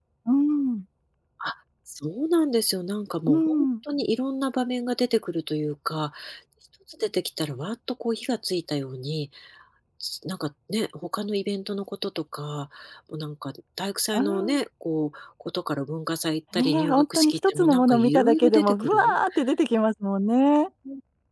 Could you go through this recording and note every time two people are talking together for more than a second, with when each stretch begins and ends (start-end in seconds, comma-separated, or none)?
16.5-19.1